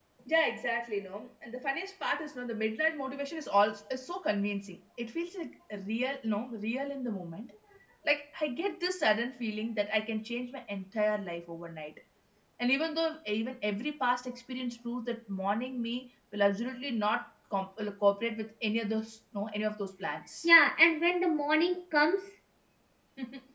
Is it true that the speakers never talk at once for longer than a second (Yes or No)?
Yes